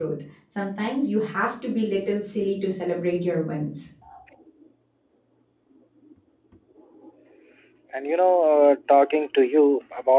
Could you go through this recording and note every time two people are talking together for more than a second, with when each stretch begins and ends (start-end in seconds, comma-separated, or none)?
none